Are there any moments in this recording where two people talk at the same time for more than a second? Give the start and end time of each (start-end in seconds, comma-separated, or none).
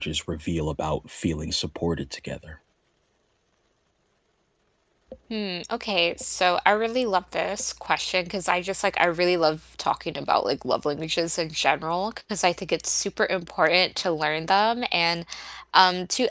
none